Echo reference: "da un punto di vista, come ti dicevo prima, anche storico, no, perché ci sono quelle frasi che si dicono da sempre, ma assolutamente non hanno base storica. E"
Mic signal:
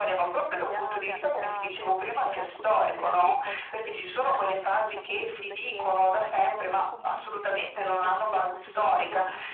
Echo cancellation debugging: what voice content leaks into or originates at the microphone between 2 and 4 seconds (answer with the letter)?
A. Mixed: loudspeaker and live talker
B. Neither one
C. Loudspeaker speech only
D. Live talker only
A